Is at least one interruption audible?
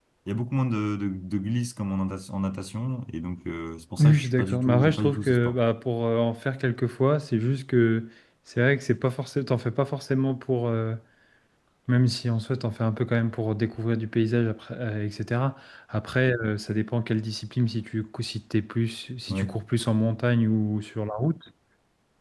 Yes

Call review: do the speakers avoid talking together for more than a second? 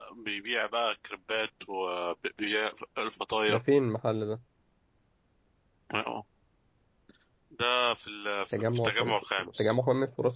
No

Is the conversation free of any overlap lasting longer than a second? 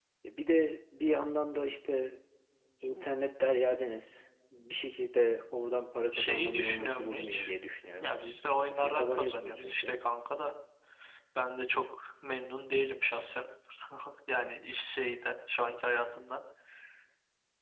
No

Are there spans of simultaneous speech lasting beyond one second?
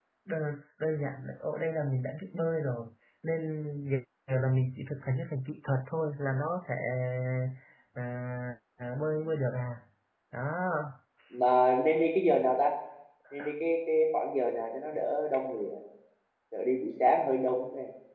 No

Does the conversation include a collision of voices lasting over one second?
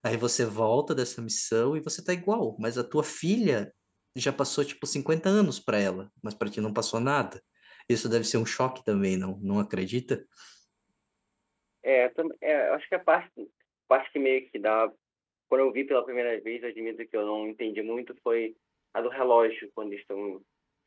No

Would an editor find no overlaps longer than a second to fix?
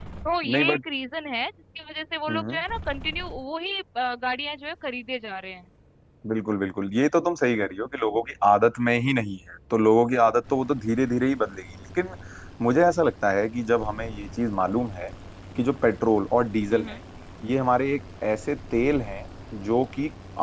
Yes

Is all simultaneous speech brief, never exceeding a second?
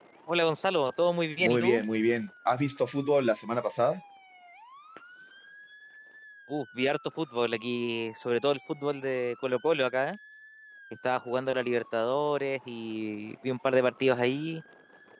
Yes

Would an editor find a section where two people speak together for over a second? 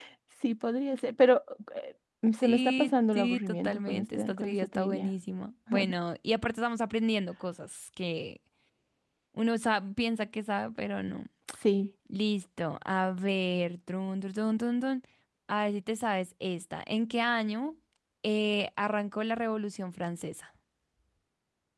Yes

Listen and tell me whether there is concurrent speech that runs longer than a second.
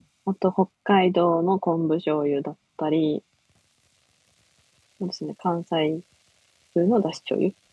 No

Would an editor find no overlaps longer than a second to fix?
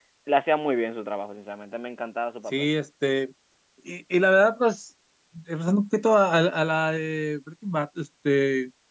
Yes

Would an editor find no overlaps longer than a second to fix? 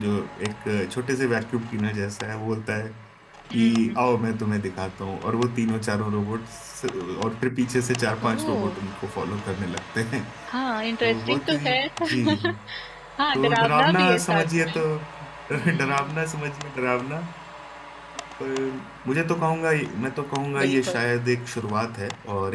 No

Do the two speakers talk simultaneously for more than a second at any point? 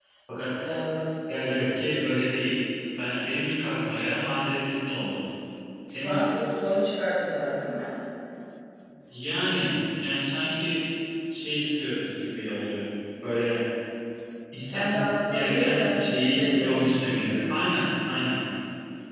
Yes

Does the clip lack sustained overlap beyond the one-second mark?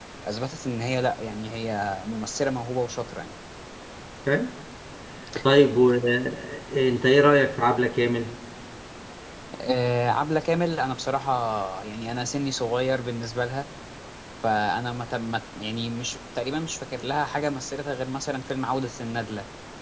Yes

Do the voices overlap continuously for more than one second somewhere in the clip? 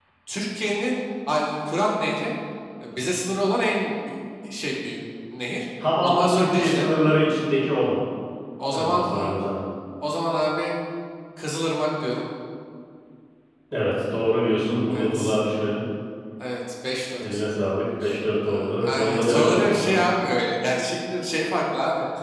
Yes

